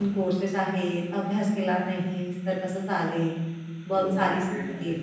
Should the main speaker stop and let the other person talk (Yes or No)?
Yes